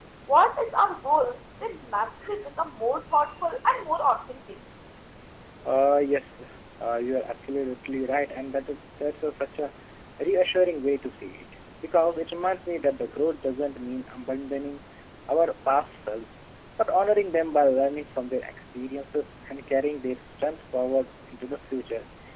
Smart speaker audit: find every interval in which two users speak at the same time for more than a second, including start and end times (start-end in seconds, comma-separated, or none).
none